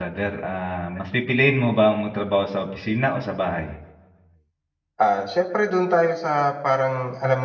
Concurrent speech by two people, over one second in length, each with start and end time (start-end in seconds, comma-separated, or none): none